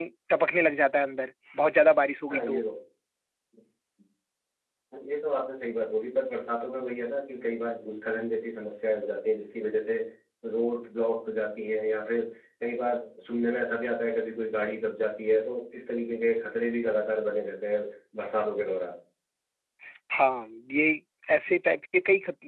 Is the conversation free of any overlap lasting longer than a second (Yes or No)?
Yes